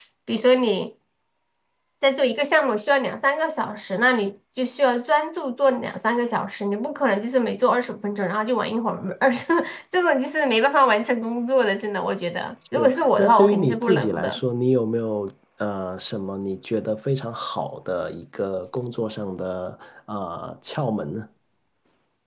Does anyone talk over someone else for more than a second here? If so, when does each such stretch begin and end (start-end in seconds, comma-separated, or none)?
12.8-14.4